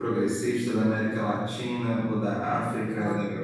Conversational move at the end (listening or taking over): taking over